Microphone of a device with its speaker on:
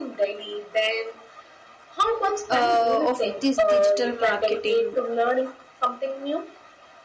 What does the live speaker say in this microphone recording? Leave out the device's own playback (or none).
uh, of this digital marketing